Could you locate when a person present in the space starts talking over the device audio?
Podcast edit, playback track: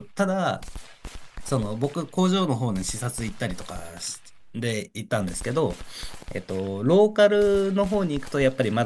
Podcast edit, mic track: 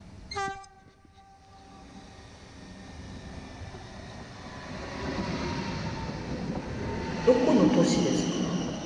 7 s

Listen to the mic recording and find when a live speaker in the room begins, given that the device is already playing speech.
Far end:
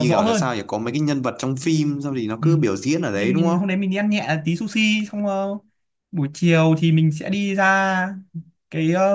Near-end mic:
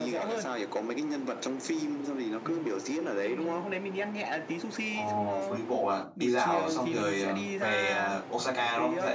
5 s

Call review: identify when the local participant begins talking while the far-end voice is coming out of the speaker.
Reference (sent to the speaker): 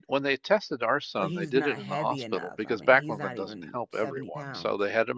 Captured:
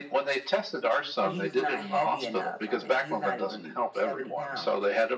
none

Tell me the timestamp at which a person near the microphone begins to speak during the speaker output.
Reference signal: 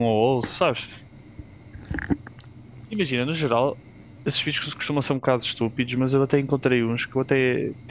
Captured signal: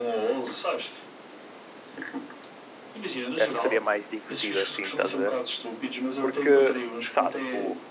3 s

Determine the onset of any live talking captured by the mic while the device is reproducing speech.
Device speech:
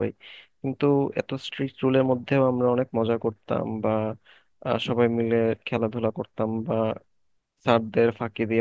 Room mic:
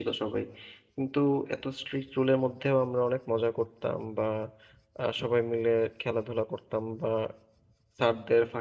none

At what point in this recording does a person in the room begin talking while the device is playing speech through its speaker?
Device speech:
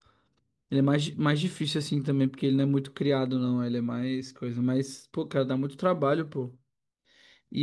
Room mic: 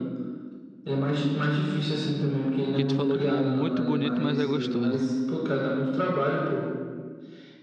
3 s

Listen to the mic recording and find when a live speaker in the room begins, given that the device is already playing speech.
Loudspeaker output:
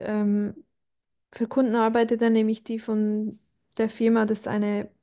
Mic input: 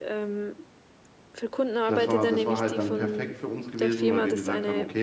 2 s

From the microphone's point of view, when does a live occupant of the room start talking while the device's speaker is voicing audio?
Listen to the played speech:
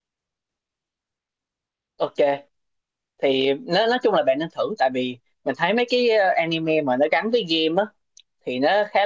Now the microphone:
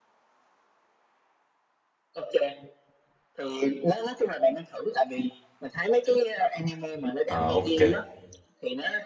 7 s

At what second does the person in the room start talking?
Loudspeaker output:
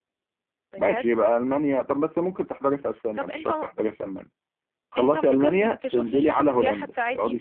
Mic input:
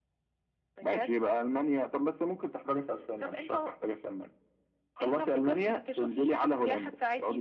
none

